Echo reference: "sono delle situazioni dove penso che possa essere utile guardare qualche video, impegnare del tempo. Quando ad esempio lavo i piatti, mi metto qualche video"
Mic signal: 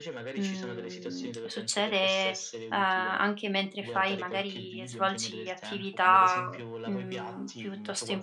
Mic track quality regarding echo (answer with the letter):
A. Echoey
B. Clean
A